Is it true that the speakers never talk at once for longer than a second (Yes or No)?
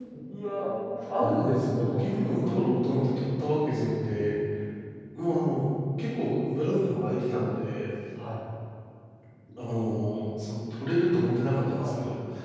No